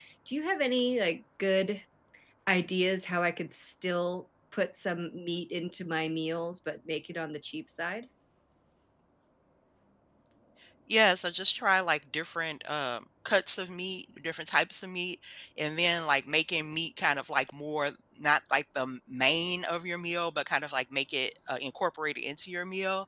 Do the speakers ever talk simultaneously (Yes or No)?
No